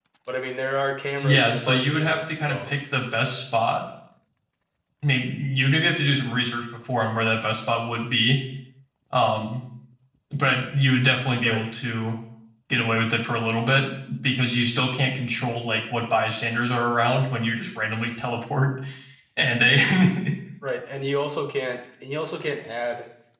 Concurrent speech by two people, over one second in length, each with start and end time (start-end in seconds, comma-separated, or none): 1.2-2.7